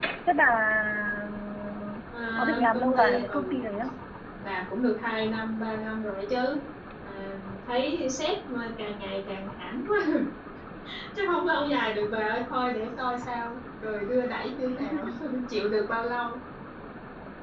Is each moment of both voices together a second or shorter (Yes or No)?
No